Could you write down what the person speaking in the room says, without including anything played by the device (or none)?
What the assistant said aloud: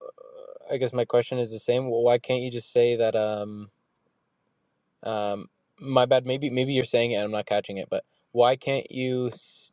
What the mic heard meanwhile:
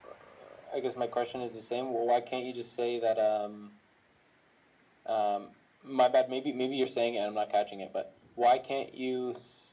none